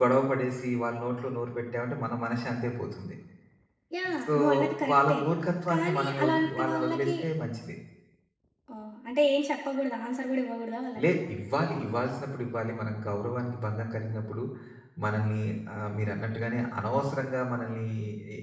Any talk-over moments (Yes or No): Yes